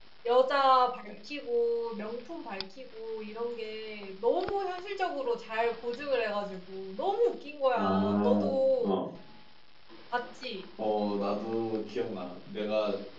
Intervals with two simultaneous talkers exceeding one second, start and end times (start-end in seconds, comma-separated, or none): 7.8-9.0